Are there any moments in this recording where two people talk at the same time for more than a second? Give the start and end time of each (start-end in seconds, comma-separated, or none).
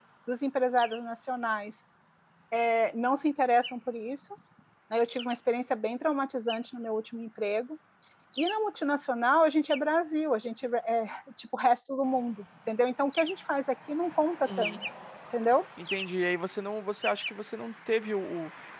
none